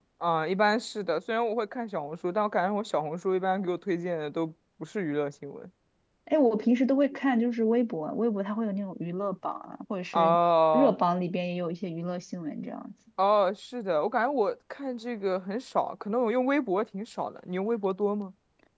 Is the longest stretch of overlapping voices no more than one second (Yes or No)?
Yes